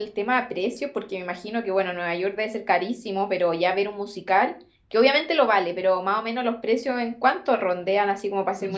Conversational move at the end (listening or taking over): taking over